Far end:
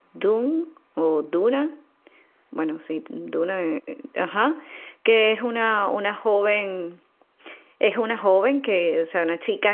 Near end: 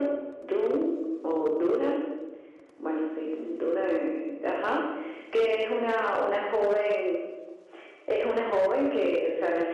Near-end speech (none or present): none